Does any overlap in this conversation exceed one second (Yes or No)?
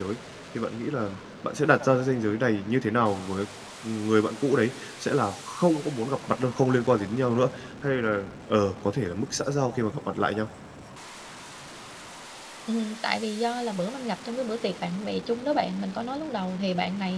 No